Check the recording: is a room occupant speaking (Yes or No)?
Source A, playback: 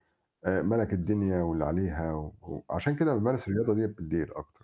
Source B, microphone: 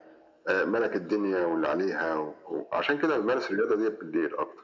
No